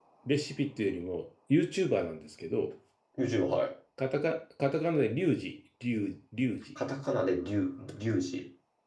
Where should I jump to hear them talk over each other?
none

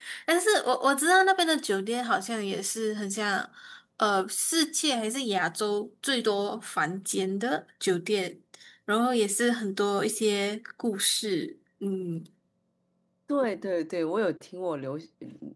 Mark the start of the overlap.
none

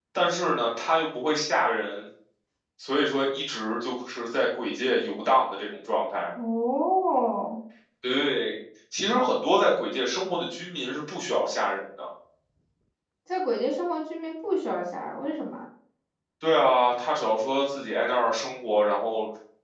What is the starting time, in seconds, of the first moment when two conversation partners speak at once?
none

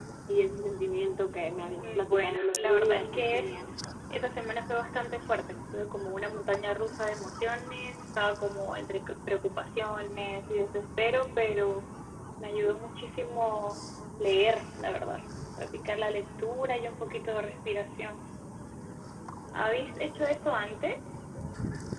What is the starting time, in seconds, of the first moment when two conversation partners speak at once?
1.8 s

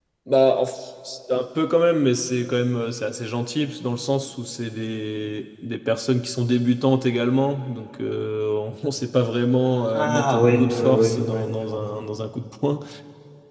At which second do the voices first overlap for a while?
9.9 s

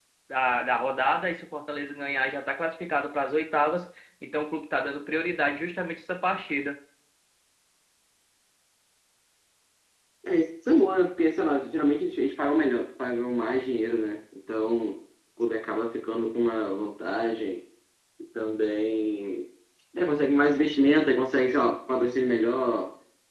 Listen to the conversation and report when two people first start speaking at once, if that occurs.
none

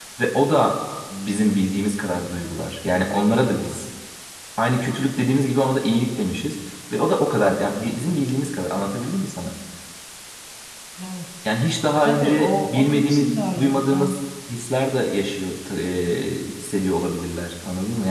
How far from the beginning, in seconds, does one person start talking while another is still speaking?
12.0 s

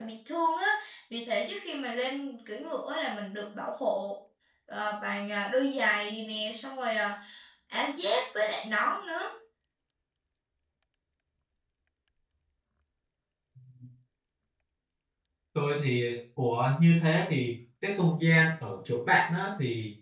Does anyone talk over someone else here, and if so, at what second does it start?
none

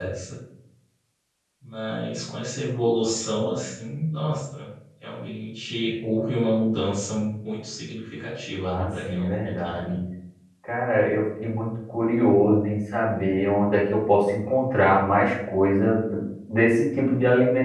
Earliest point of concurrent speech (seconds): 8.6 s

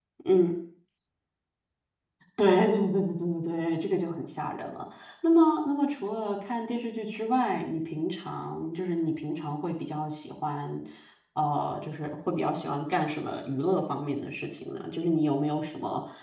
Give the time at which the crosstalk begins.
none

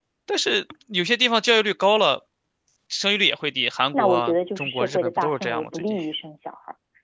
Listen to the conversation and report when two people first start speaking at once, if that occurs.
3.9 s

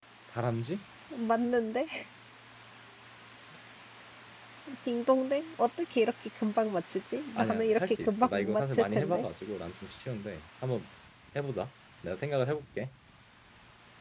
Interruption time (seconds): 7.3 s

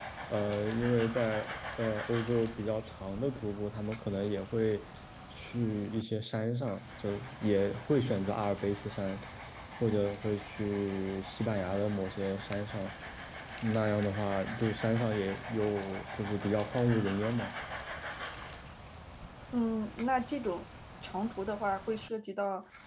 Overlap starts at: none

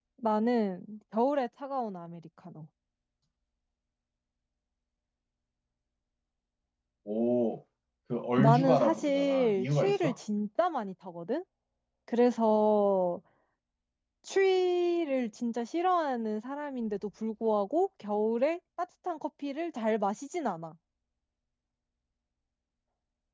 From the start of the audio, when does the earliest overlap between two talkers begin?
8.4 s

